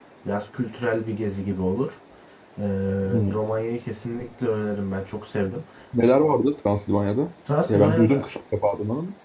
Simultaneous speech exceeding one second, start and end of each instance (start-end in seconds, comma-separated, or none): none